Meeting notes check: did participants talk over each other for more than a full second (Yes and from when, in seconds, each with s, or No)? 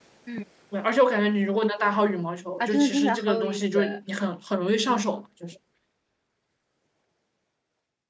Yes, from 2.6 s